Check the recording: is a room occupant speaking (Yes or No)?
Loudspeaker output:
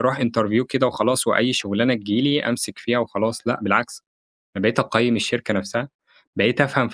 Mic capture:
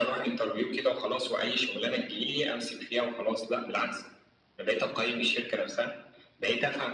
No